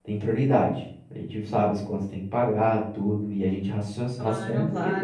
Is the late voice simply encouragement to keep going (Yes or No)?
Yes